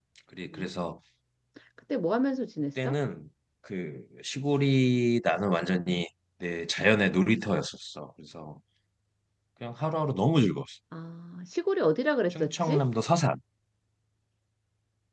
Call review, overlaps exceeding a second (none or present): none